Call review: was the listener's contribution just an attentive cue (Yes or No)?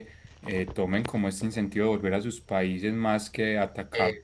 Yes